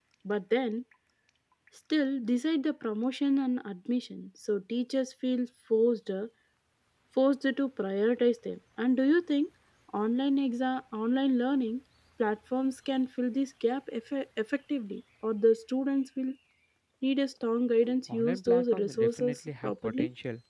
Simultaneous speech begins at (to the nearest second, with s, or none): 18 s